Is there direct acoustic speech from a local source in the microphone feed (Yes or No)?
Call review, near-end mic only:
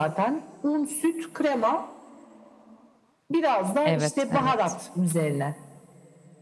Yes